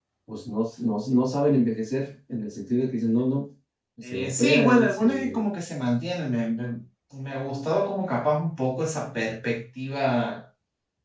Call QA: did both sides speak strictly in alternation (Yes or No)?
No